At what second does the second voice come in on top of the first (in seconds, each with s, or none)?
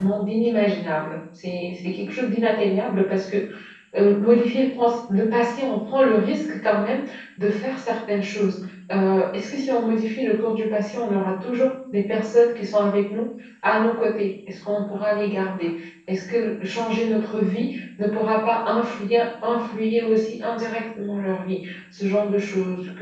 none